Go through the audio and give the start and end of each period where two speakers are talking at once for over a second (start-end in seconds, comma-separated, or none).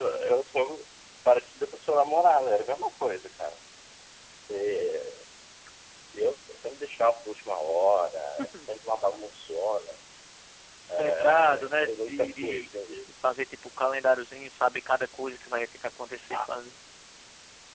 10.9-12.6